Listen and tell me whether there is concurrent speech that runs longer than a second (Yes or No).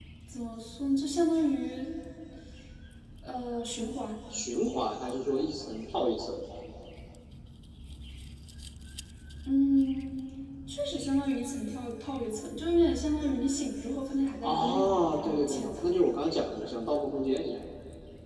Yes